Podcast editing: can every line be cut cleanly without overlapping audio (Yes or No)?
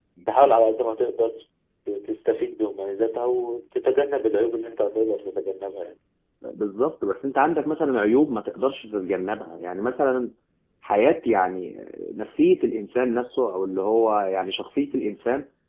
Yes